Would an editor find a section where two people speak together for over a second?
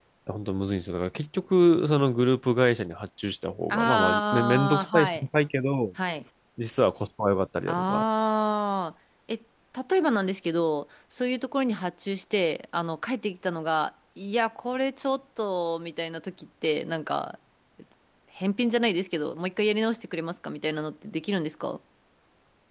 Yes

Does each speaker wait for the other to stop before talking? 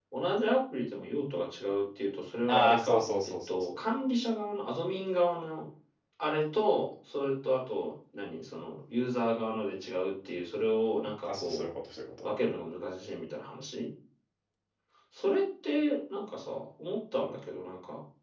No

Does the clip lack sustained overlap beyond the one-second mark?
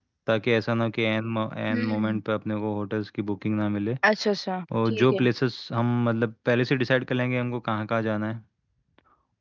Yes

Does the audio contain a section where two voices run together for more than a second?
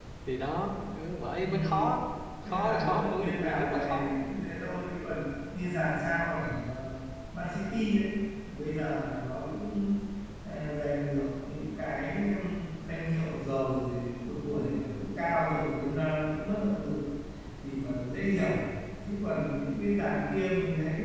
Yes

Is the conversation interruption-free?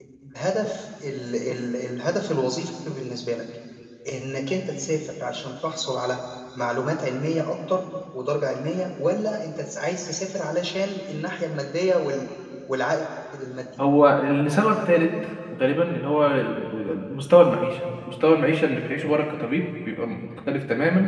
Yes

